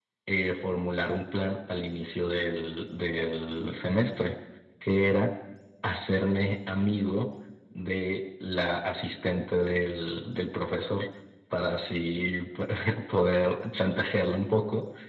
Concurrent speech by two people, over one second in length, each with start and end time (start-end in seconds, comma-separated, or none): none